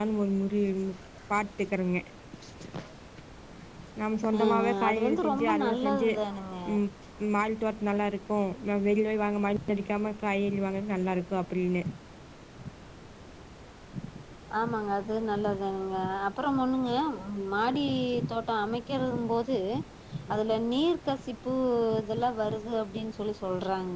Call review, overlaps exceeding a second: present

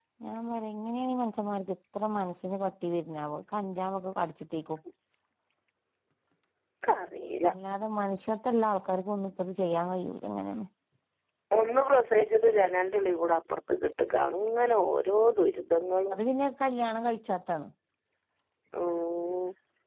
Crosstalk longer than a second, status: none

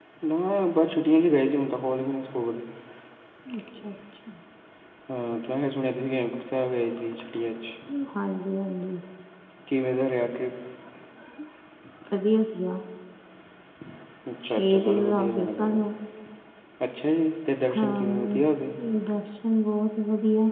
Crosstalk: present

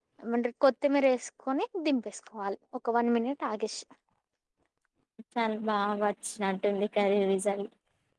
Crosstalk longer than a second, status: none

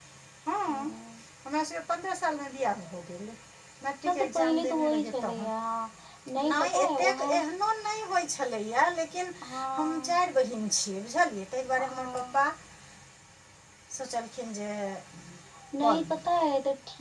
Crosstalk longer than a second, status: present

